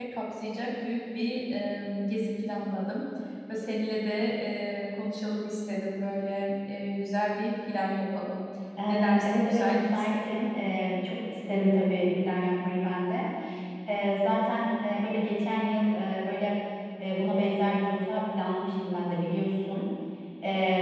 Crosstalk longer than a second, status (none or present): present